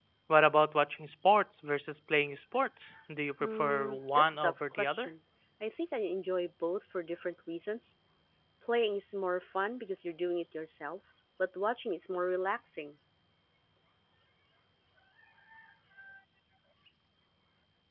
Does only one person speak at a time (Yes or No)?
No